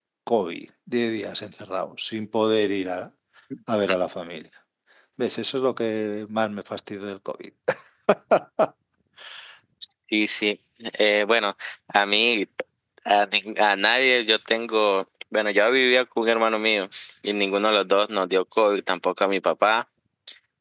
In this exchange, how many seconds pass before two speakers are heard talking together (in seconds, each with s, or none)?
none